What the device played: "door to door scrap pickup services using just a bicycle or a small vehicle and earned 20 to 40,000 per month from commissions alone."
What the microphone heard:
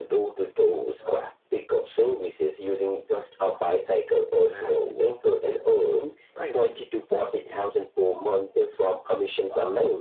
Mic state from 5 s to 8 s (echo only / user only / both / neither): both